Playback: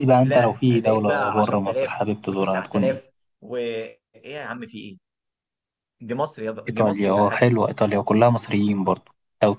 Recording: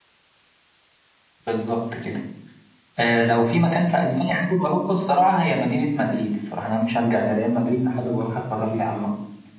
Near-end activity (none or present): present